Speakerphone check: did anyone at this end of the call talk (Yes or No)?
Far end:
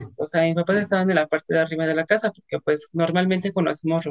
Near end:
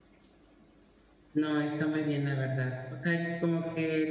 Yes